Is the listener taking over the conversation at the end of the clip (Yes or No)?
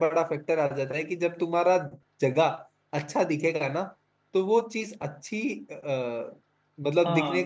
Yes